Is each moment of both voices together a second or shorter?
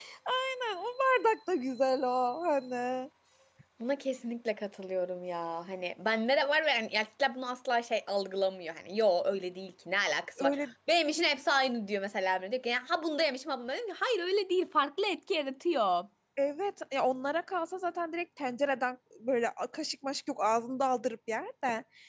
Yes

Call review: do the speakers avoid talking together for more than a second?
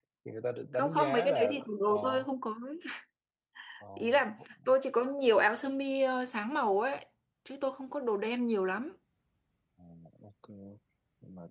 No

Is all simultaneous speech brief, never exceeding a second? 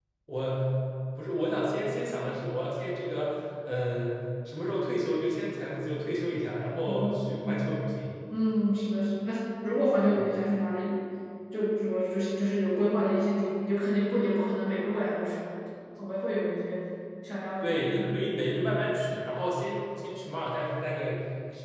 Yes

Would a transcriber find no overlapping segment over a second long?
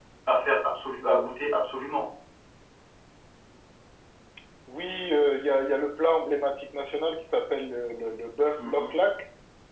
Yes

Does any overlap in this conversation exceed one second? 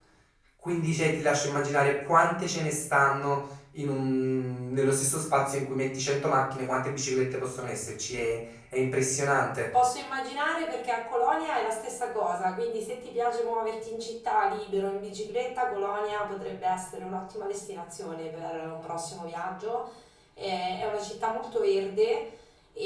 No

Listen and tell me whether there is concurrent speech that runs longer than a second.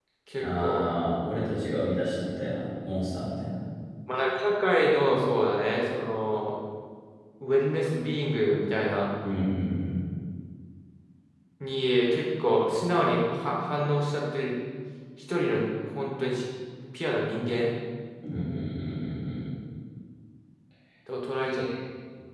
No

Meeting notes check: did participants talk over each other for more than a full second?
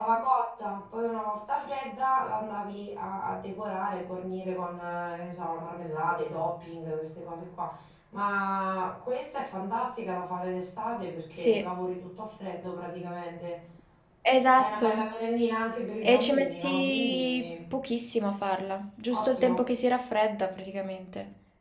Yes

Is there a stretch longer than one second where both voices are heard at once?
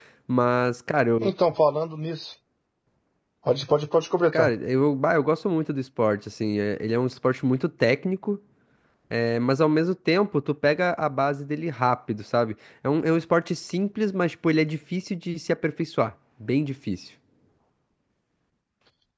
No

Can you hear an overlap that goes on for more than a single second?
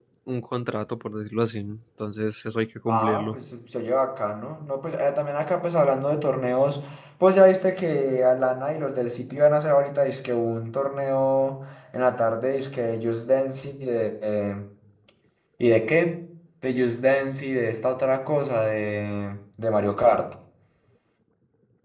No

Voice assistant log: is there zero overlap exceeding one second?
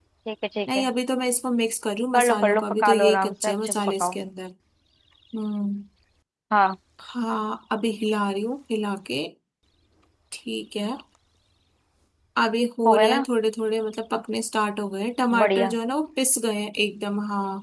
No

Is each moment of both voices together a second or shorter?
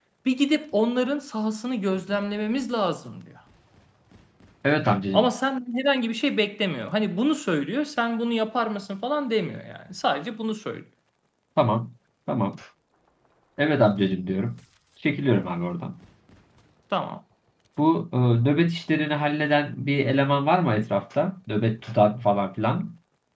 Yes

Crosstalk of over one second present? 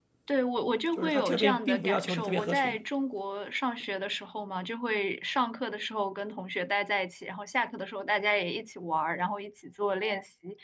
Yes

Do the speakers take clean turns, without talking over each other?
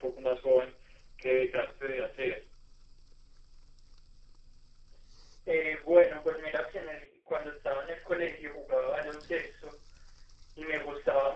Yes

